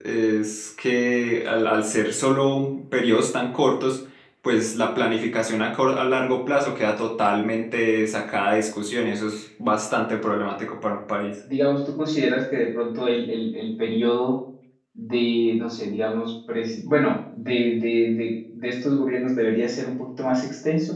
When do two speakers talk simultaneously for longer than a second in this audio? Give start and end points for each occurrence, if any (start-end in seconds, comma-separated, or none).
none